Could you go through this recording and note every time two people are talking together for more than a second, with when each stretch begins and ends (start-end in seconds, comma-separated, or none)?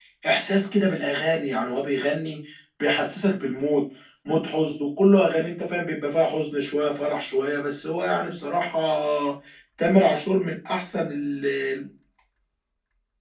none